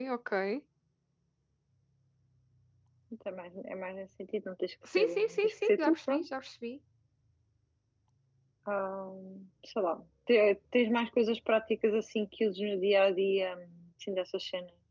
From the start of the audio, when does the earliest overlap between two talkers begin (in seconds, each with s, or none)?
4.9 s